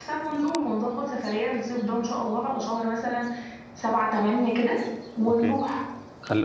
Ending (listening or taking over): taking over